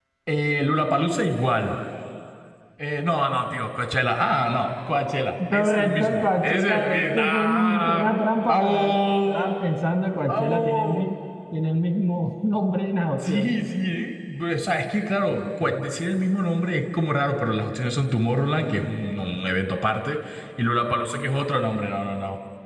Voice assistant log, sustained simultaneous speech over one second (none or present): present